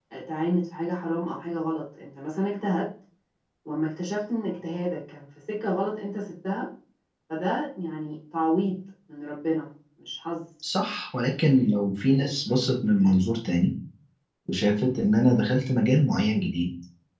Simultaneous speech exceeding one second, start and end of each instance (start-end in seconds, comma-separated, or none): none